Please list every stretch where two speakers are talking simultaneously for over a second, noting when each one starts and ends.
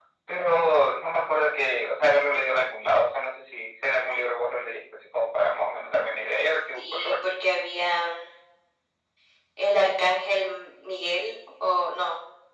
none

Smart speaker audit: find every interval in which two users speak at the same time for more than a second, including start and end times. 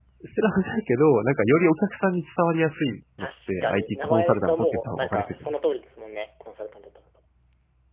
3.2-5.6

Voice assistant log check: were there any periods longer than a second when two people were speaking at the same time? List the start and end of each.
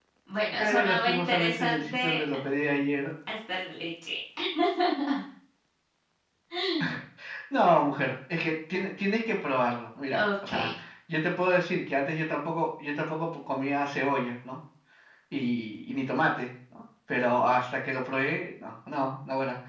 0.6-2.2

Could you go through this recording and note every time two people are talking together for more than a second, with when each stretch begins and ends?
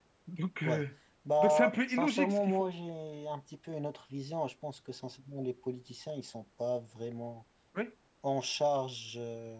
1.4-2.7

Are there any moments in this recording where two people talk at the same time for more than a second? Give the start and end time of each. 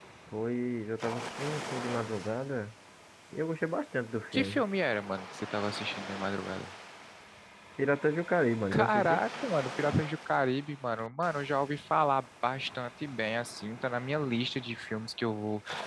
none

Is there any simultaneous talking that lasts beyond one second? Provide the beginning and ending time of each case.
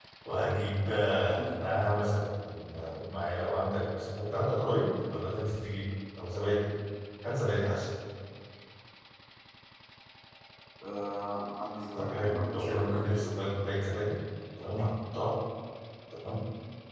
11.9-13.4

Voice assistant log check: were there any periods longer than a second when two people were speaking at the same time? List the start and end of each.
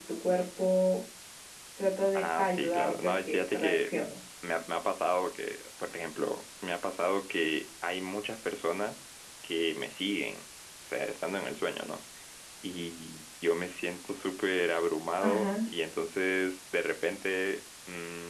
2.1-3.9

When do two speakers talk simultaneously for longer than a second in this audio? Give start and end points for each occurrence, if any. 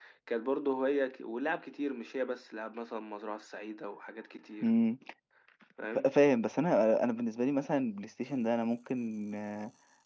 none

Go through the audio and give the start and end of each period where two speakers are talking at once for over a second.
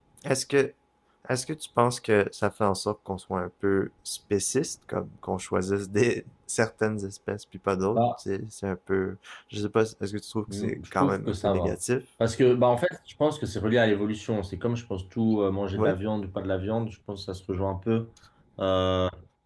10.5-11.8

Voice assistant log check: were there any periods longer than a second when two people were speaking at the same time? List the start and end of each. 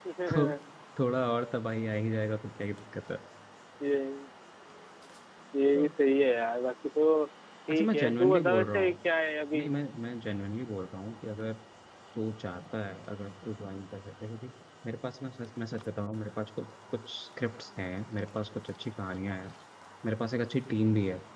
7.7-9.0

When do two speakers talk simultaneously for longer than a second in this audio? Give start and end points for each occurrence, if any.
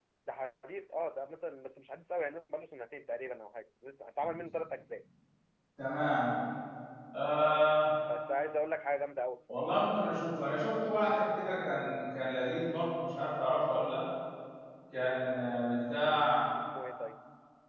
none

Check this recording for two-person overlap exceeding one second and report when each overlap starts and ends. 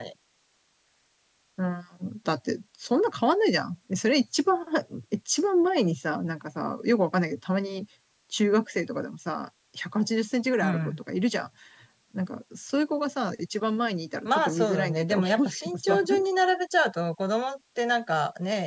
14.2-16.0

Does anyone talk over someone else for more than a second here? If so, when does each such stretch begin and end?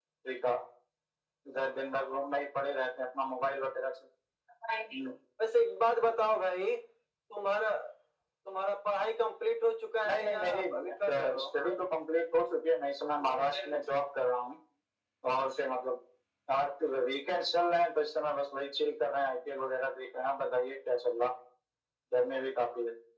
10.0-11.4

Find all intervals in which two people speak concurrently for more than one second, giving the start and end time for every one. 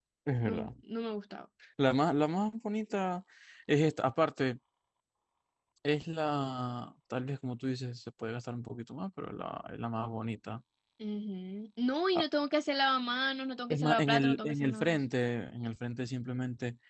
13.7-15.0

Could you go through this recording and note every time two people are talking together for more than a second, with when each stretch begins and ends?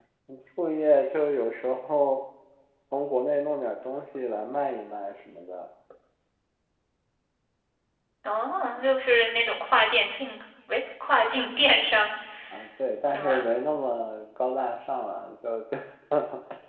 none

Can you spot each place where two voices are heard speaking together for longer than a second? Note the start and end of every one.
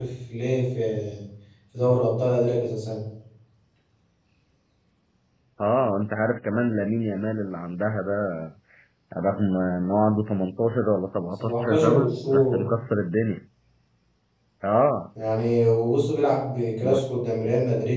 11.3-12.6

